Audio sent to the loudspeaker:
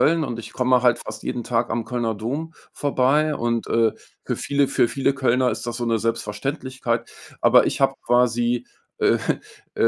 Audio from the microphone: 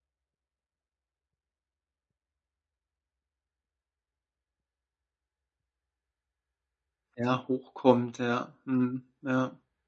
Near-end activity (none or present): present